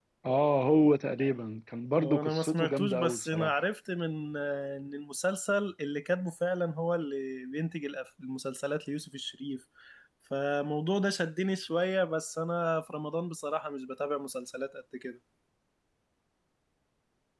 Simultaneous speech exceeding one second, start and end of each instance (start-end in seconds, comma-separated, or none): 2.0-3.6